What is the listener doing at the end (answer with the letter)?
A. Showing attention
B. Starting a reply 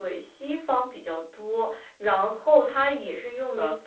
A